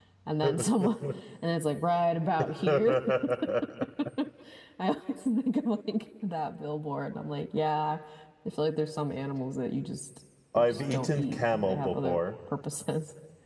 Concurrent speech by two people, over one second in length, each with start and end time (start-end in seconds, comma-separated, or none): 10.6-12.2